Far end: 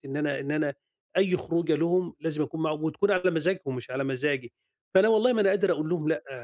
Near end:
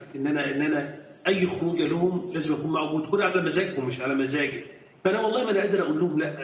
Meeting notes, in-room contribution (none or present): none